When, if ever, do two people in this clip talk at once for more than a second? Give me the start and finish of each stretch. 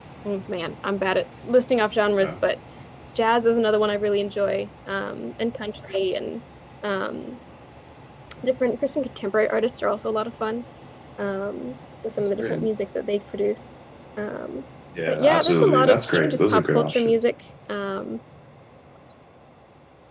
15.1-17.2

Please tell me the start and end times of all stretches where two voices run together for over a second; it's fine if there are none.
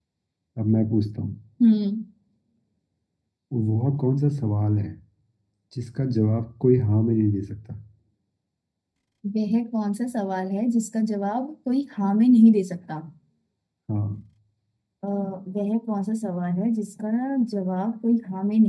none

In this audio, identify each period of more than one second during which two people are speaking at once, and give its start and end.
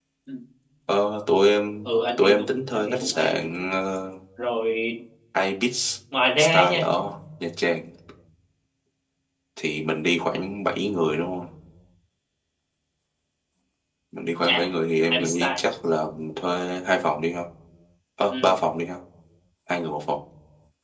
1.9-3.4

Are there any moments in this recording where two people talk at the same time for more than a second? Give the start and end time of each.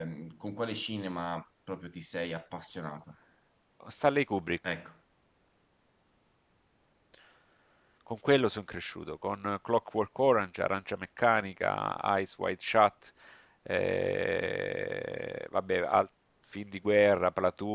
none

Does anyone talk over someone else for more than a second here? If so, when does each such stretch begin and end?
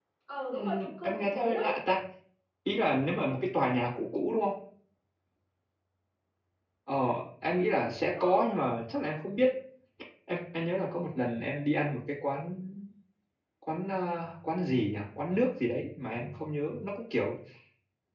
0.5-1.7

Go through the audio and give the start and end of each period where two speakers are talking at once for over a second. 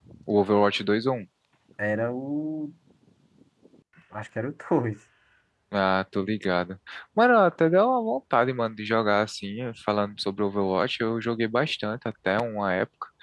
none

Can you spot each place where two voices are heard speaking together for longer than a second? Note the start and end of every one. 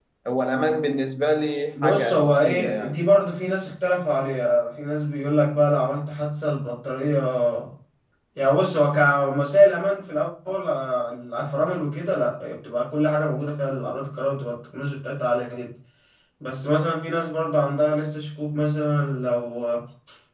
1.8-3.0

